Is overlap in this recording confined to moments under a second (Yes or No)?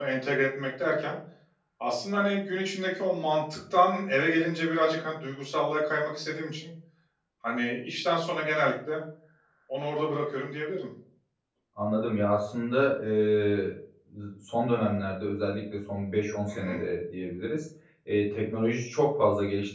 Yes